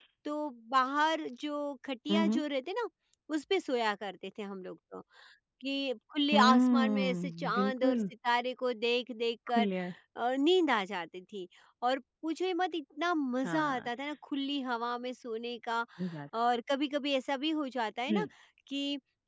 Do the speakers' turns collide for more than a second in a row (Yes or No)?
Yes